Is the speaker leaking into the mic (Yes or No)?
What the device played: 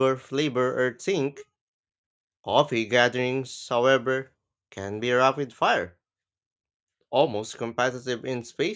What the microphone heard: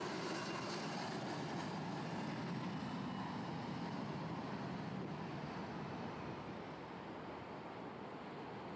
No